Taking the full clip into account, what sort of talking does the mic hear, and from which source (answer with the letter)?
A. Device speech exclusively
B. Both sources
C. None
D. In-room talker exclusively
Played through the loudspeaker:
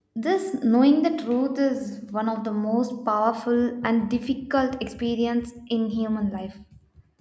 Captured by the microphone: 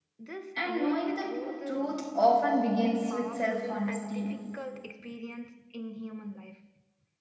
B